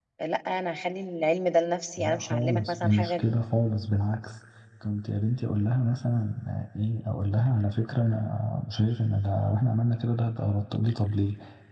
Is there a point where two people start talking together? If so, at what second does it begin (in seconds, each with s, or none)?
2.0 s